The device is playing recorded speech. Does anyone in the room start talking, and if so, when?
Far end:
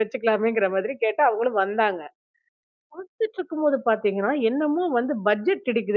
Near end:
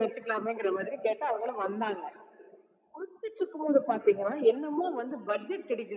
none

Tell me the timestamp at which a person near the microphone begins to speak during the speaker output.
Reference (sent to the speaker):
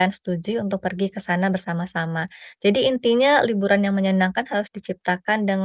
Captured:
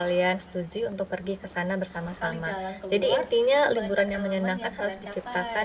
2 s

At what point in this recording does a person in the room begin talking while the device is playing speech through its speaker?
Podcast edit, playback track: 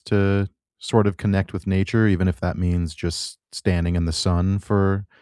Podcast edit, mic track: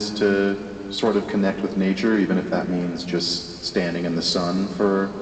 none

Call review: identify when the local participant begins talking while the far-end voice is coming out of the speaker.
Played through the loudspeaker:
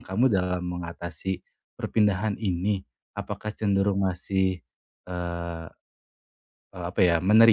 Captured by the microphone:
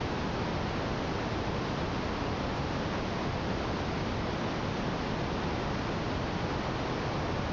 none

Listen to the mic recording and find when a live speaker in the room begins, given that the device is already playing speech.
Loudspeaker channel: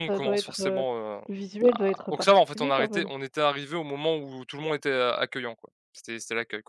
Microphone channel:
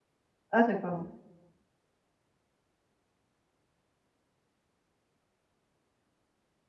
1 s

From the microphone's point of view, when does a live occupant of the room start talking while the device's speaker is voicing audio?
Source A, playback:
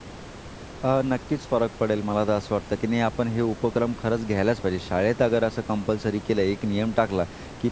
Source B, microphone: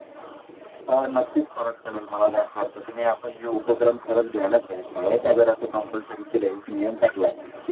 none

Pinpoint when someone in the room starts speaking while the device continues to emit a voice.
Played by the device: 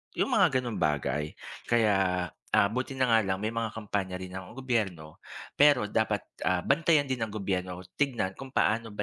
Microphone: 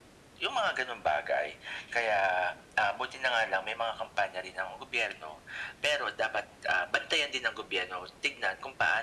none

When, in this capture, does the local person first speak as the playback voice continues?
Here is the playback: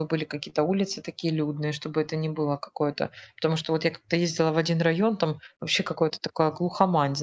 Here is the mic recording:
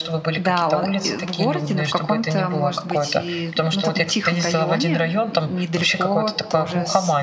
0 s

